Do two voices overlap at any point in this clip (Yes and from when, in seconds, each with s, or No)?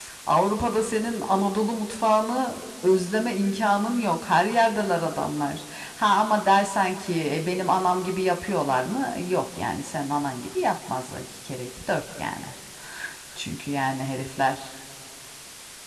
No